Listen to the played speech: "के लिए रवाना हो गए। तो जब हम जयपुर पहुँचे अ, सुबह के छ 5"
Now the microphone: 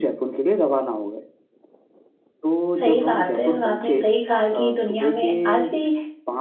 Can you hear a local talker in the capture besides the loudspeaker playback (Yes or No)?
Yes